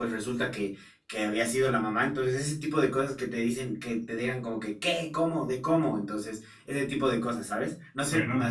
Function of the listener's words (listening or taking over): listening